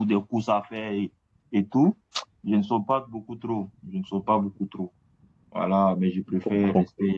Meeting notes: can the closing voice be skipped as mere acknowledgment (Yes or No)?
Yes